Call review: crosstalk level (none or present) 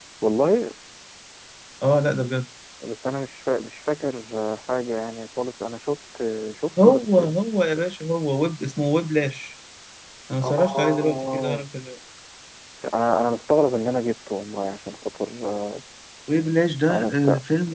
present